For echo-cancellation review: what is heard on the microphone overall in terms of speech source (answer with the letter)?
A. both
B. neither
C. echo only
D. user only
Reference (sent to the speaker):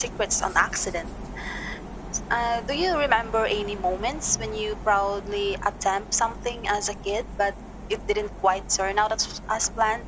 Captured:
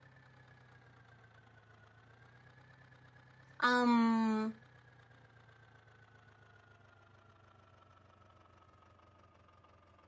D